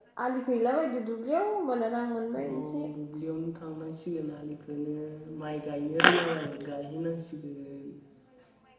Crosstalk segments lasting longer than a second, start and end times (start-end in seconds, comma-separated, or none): none